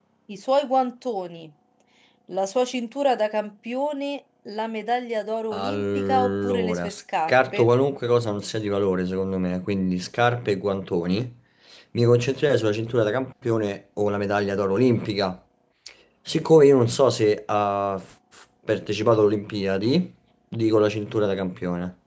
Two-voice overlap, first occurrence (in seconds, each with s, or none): 5.5 s